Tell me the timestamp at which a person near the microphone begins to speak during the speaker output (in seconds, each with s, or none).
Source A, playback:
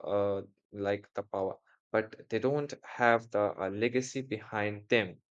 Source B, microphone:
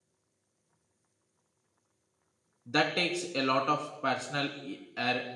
2.6 s